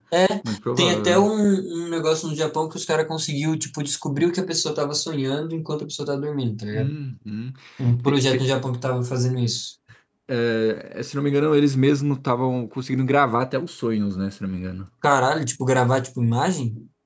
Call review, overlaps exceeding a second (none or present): none